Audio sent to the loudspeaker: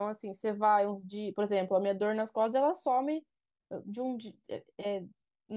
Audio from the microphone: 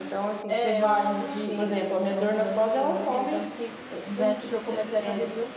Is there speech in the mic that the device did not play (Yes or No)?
Yes